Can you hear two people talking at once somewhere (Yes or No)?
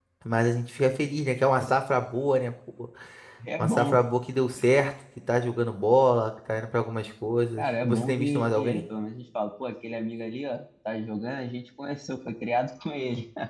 Yes